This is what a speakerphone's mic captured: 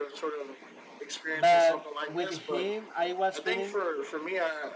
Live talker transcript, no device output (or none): but with him i was feeling